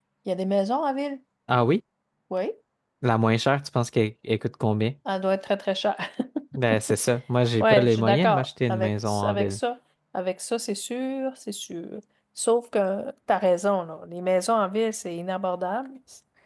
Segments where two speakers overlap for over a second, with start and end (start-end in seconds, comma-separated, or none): 7.6-9.6